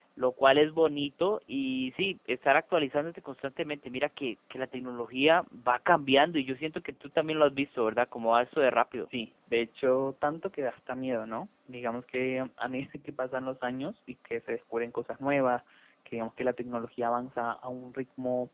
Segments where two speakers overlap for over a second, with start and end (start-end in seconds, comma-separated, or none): none